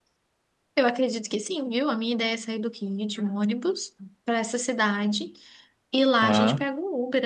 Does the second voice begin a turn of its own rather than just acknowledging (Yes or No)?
No